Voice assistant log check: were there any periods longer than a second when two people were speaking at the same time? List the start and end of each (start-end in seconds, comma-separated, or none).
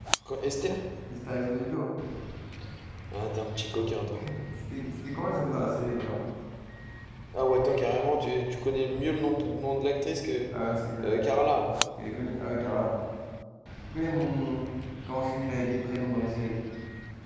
none